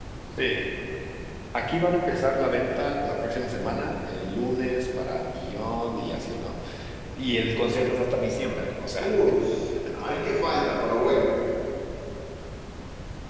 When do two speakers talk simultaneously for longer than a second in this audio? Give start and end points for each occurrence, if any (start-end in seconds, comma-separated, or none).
none